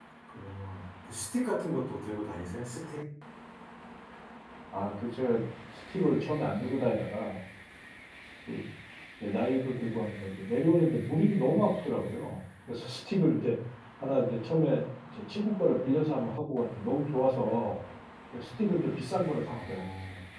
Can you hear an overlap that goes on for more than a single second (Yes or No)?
No